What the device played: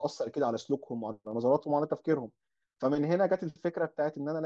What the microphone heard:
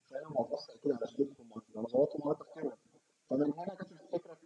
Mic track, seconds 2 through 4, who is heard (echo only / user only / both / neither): echo only